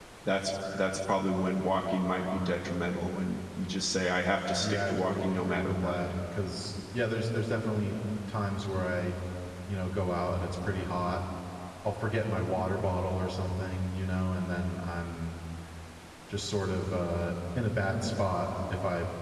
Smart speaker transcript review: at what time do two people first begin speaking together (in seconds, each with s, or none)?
4.6 s